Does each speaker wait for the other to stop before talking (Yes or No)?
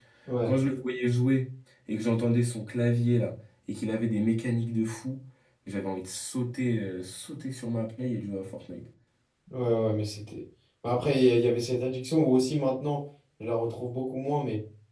Yes